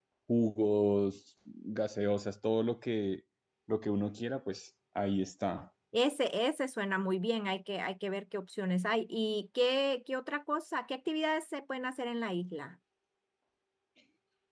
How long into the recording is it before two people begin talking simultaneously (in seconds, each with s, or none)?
none